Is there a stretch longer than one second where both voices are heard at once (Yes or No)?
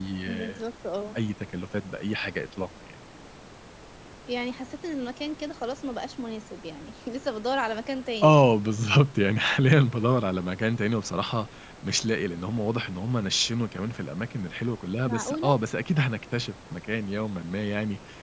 No